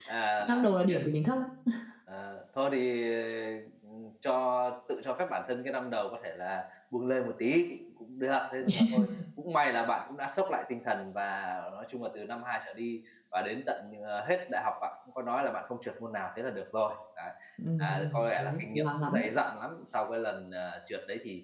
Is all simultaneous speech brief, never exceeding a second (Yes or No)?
No